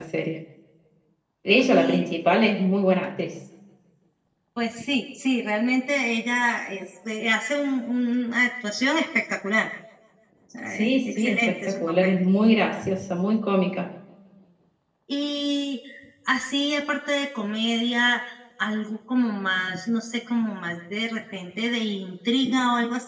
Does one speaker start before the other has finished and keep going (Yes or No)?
Yes